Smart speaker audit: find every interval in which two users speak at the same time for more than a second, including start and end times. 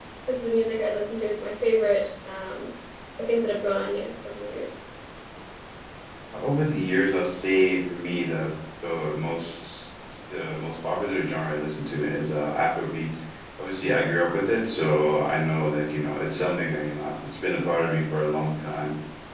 none

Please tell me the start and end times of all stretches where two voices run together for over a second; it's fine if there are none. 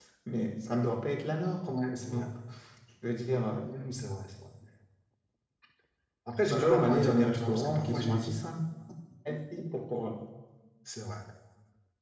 6.5-8.3

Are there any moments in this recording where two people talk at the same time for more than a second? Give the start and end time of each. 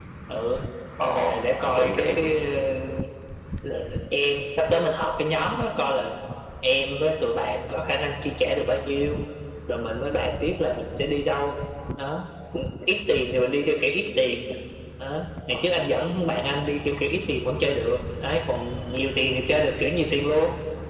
1.0-2.3

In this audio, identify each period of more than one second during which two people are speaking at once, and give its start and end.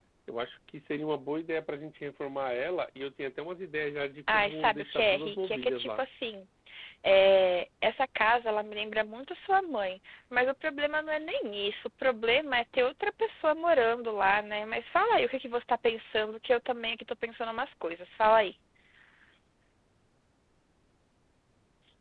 4.3-6.0

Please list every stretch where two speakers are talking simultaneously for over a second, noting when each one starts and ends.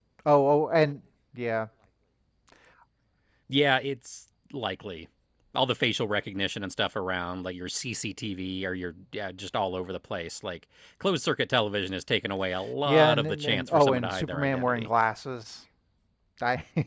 12.8-14.9

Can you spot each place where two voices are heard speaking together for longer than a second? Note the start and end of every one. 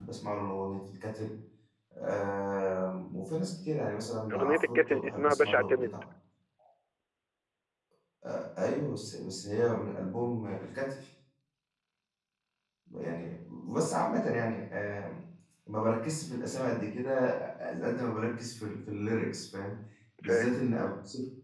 4.3-6.0

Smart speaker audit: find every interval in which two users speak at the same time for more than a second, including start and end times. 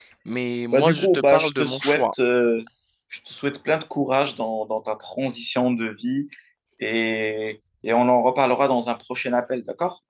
0.7-2.1

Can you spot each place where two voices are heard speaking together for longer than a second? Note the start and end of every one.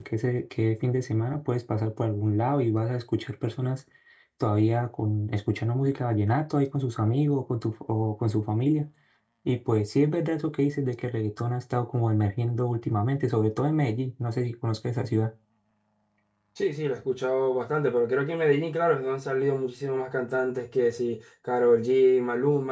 none

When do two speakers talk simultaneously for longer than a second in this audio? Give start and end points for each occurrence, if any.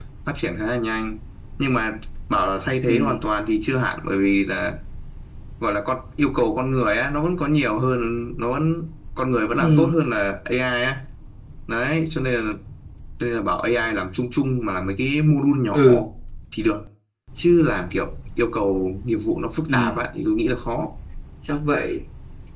none

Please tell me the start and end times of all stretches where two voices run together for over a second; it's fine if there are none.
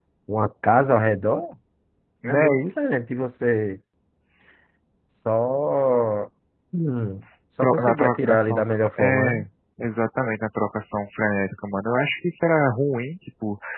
7.6-9.5

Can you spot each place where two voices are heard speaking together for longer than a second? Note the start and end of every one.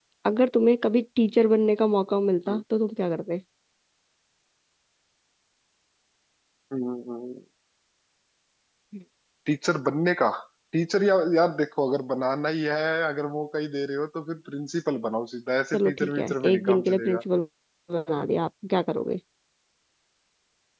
15.7-17.2

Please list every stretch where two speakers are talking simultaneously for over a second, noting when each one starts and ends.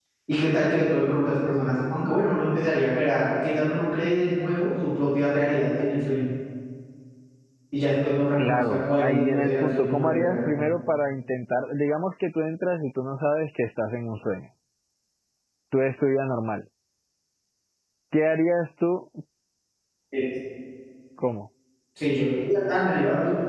8.4-10.5

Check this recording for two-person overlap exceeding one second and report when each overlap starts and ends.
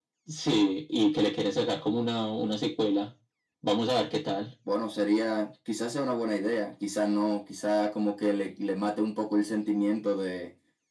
none

